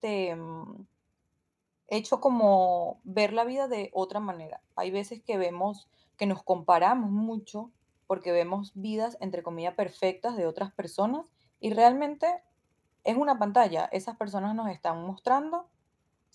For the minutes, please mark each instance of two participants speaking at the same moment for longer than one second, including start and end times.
none

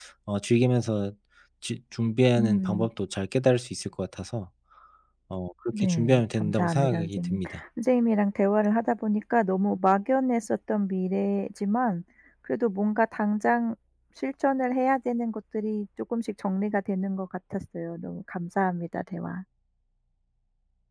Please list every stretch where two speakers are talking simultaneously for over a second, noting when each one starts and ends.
5.8-7.4

